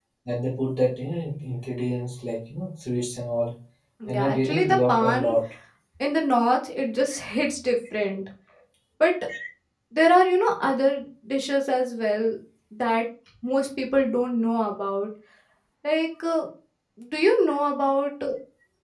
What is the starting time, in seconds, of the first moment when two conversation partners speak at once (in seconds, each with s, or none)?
4.1 s